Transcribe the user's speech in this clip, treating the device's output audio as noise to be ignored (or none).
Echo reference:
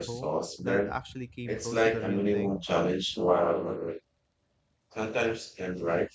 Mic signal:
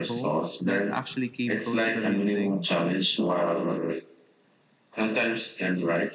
none